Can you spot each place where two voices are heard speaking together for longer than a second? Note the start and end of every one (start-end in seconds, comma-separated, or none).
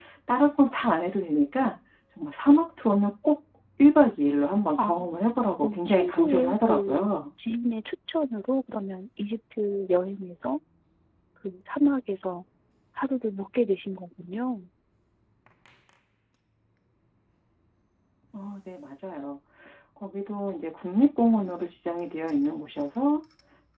5.6-7.1